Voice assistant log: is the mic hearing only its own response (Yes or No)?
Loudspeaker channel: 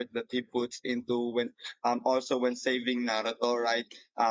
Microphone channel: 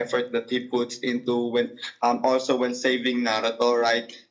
Yes